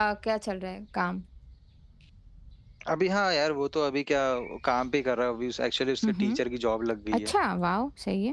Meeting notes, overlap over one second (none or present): none